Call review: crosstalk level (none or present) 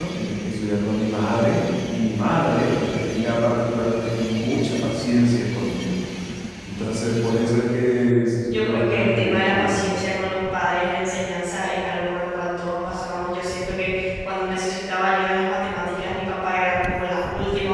present